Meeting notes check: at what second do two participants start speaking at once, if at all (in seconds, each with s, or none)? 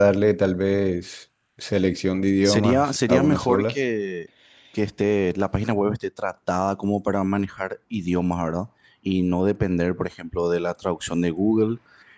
2.4 s